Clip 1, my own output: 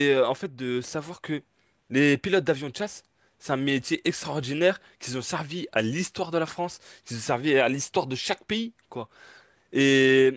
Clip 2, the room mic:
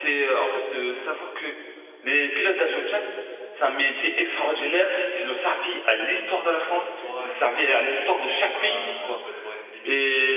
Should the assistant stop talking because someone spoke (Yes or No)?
Yes